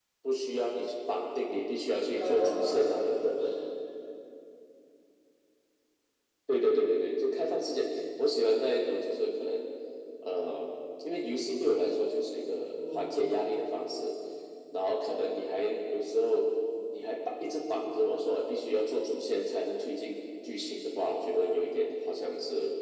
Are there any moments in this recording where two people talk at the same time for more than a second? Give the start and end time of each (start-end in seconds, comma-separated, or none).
2.1-3.4